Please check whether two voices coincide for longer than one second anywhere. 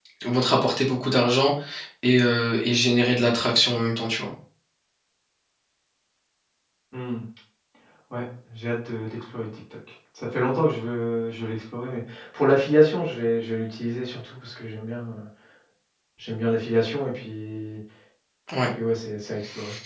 No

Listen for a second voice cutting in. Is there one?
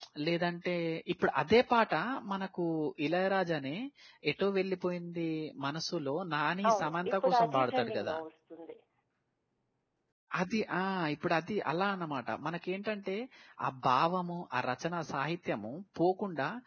Yes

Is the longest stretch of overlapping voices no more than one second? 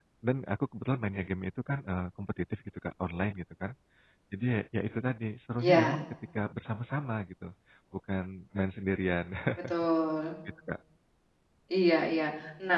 Yes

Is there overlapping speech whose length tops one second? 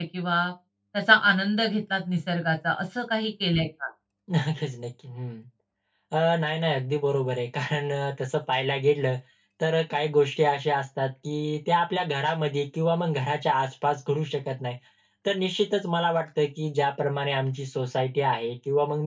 No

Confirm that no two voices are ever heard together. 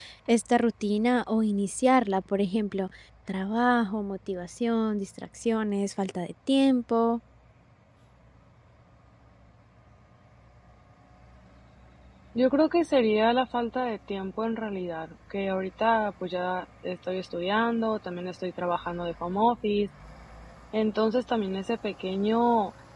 Yes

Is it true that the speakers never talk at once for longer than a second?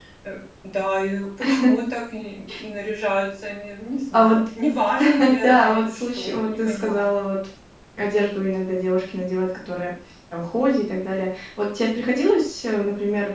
No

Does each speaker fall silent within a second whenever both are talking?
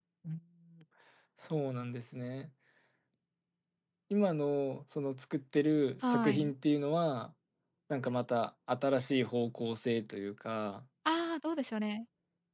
Yes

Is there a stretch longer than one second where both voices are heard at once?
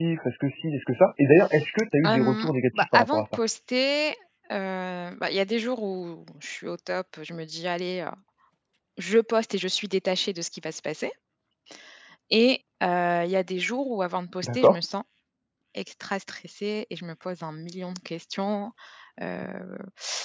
Yes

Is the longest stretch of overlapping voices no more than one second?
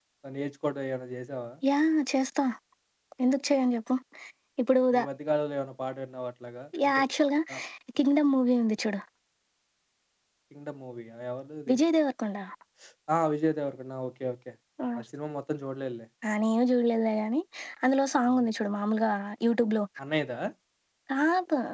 Yes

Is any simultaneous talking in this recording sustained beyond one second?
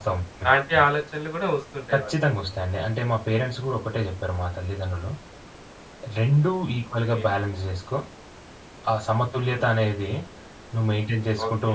No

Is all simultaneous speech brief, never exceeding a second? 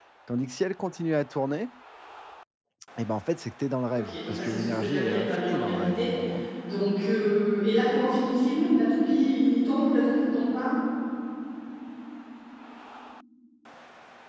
No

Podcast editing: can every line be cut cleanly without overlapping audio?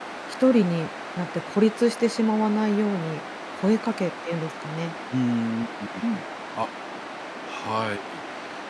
Yes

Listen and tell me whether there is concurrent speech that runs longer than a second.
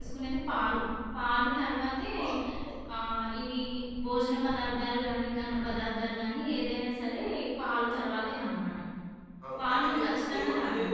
Yes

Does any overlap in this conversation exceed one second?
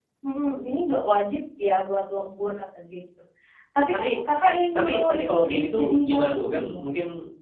Yes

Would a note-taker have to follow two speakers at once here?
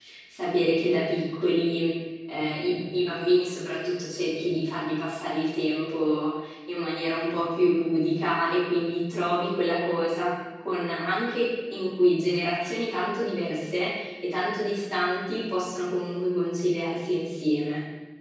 No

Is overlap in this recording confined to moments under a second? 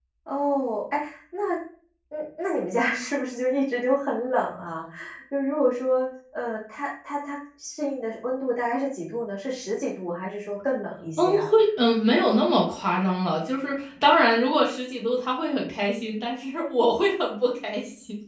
Yes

